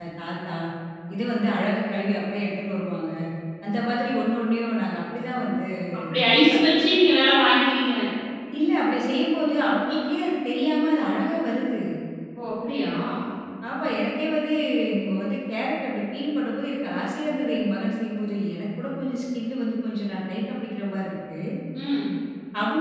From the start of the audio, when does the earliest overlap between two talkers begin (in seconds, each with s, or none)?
none